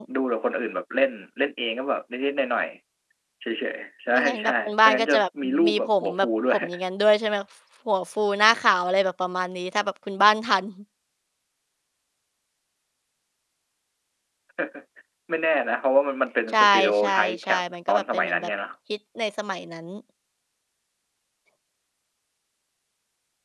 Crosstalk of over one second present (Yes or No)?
Yes